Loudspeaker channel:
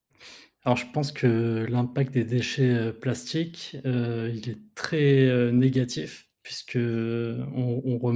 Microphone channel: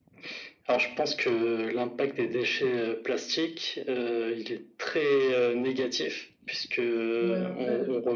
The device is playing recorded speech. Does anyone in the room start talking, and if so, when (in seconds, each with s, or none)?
7.2 s